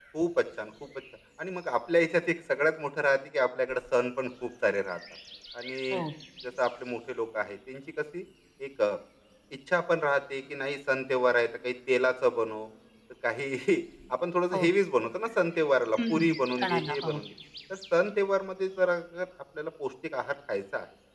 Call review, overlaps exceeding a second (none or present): present